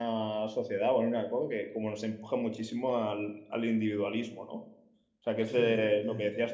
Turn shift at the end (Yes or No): Yes